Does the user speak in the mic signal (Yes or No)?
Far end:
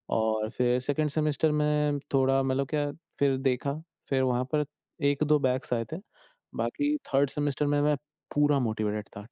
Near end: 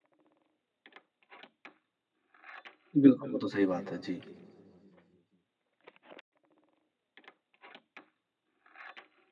Yes